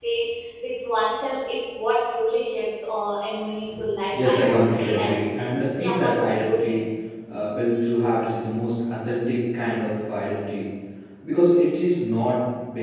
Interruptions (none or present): present